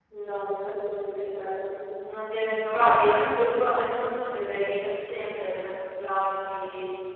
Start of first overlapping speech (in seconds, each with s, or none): none